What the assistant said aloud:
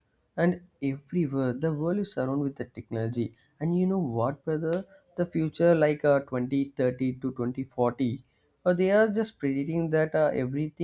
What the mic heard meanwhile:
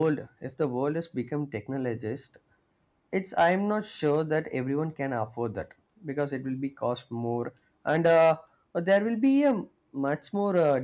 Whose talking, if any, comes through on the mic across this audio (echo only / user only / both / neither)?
user only